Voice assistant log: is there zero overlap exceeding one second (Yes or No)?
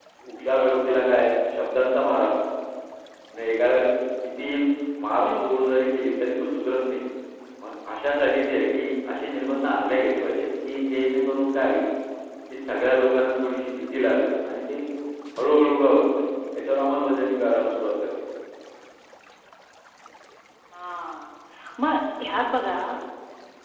Yes